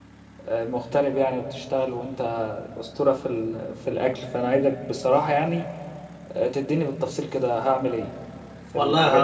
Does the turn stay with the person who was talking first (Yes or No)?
No